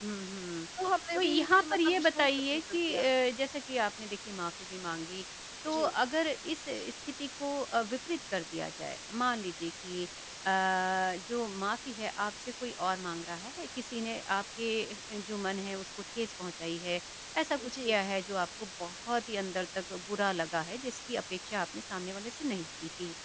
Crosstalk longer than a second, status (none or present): present